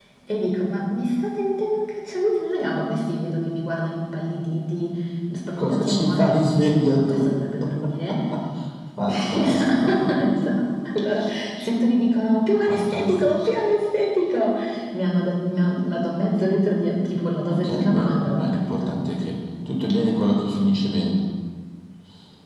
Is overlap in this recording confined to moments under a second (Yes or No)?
No